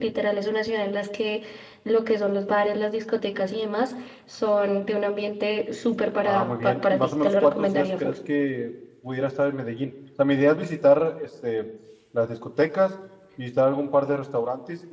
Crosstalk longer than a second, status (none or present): present